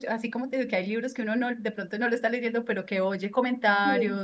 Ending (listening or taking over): listening